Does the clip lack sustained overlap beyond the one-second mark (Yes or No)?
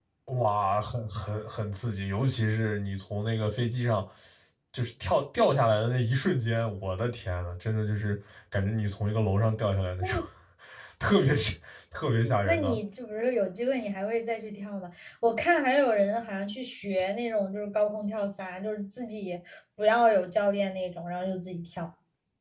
Yes